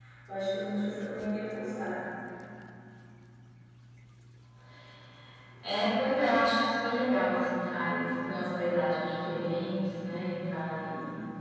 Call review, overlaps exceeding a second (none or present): none